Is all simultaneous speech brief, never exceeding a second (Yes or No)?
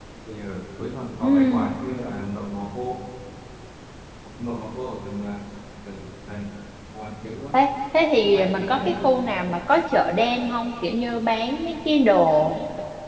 No